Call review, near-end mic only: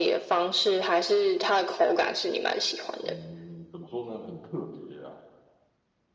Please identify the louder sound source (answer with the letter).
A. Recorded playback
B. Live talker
A